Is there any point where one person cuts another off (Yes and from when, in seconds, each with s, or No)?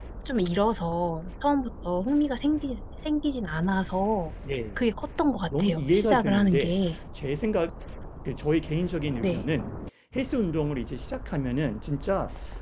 Yes, from 5.6 s